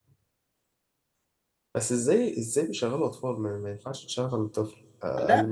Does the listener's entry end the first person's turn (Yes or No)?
Yes